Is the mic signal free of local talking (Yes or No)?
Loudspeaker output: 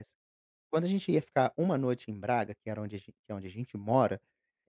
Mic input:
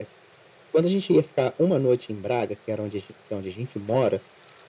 Yes